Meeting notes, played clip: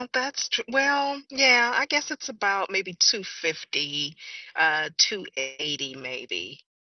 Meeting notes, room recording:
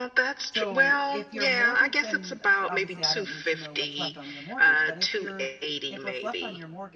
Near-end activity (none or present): present